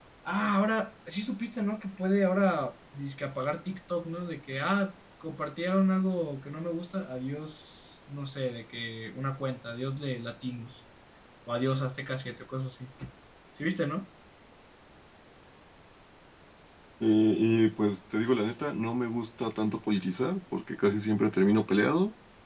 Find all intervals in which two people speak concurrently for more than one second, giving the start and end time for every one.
none

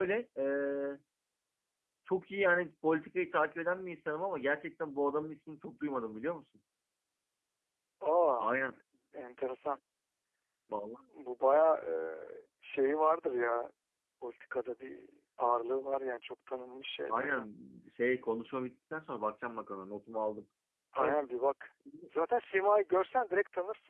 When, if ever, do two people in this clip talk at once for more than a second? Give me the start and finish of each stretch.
none

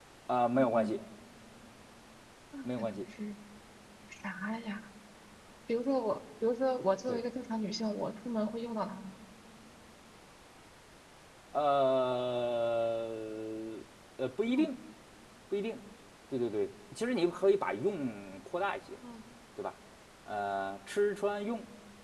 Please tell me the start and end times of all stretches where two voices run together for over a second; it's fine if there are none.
none

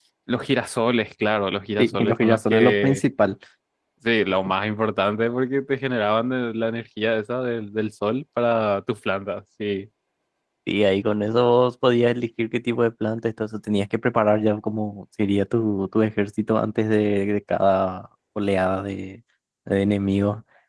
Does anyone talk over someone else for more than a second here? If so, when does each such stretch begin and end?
1.8-3.0

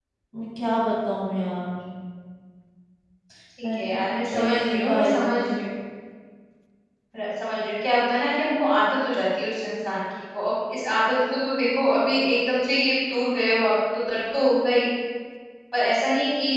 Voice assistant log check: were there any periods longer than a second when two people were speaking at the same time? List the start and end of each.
3.7-5.4

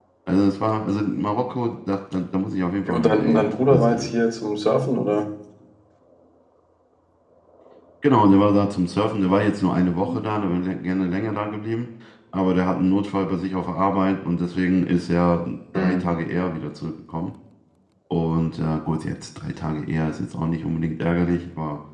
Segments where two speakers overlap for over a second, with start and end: 2.9-4.1

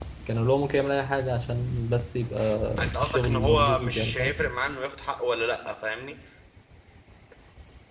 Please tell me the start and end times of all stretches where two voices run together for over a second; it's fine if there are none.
3.0-4.3

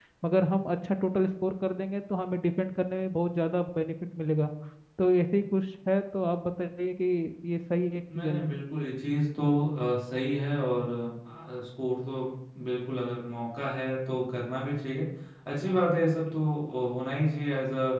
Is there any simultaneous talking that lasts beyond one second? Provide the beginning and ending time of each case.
none

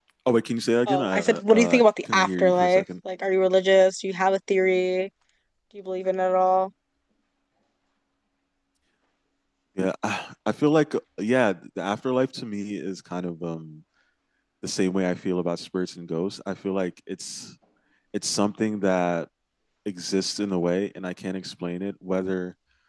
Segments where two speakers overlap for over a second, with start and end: 0.9-2.8

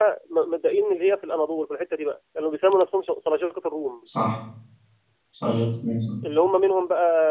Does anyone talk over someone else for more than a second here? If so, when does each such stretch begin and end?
none

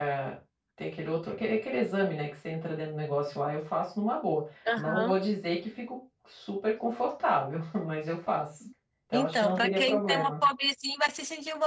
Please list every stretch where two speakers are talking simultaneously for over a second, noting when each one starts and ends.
9.1-10.3

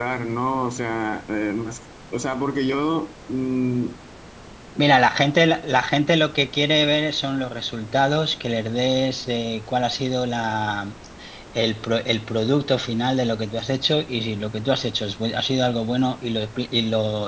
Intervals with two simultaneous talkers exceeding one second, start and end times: none

